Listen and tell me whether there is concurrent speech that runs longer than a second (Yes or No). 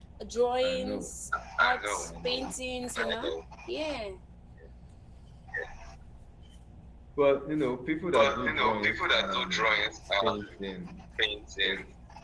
Yes